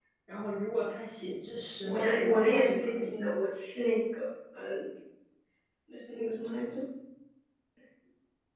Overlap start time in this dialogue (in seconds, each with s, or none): 1.8 s